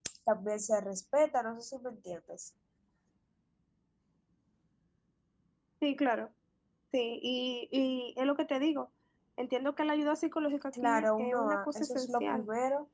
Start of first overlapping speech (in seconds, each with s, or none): 10.7 s